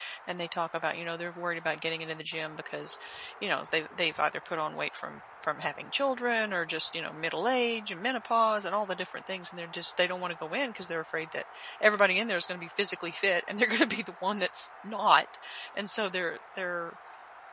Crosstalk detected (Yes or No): No